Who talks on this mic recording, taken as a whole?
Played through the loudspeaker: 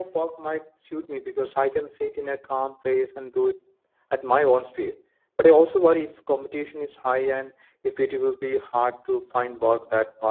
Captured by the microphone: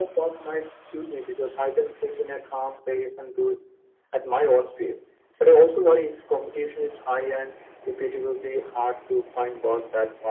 echo only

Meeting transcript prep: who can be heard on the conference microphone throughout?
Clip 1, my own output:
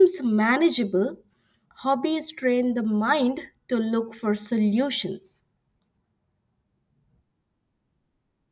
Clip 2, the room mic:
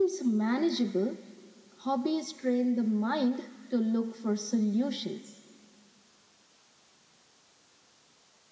echo only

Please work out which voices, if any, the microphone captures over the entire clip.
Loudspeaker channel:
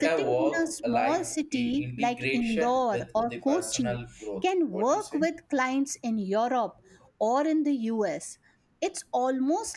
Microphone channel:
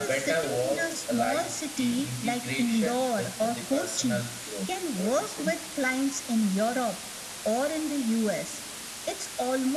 echo only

